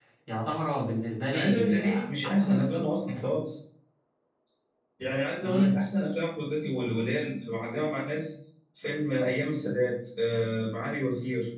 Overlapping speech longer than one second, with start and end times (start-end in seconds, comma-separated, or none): 1.3-2.8